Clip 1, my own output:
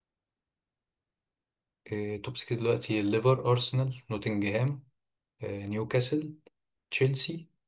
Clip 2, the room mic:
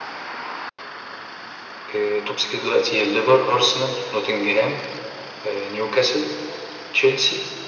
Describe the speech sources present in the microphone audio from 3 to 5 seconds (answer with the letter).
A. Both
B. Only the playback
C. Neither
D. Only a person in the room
B